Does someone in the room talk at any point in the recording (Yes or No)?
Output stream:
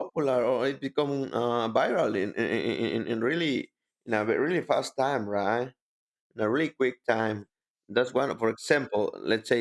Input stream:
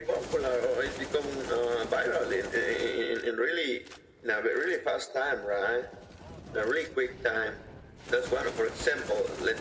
No